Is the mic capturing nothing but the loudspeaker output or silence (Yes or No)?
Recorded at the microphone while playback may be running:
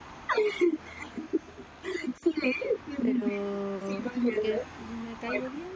No